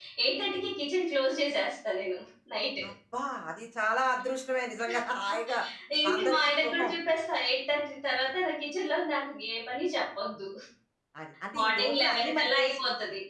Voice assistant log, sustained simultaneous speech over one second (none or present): present